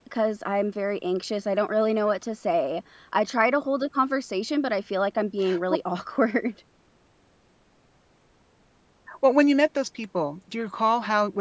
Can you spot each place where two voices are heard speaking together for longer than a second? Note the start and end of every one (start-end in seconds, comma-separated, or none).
none